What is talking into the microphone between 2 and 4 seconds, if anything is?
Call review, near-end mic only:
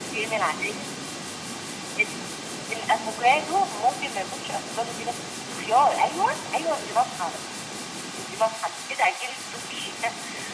echo only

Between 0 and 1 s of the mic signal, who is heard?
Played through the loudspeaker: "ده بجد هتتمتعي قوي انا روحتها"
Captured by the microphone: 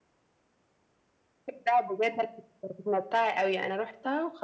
neither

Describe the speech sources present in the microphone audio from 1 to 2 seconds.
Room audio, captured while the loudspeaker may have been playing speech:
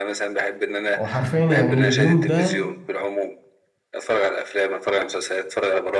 both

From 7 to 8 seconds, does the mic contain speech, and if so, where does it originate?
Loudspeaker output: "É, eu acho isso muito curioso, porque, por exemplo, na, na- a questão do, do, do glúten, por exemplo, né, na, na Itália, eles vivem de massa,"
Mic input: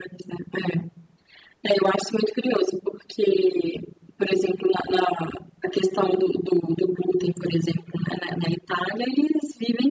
echo only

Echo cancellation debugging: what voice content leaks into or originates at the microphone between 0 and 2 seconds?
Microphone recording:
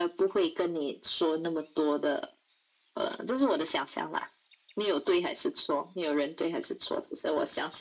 echo only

